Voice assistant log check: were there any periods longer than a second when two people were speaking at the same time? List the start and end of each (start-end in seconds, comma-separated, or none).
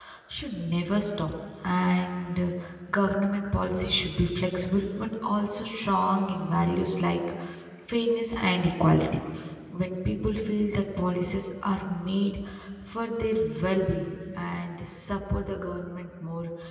none